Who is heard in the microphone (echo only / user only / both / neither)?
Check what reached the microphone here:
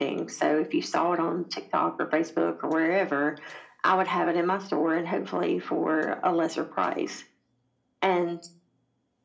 echo only